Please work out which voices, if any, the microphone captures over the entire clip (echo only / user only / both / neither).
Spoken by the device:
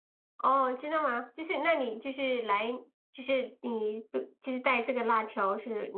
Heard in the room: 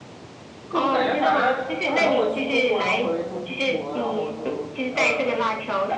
both